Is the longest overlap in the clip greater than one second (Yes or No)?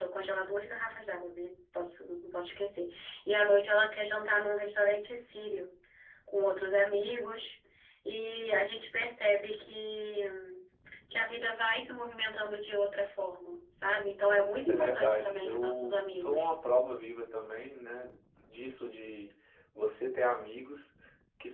Yes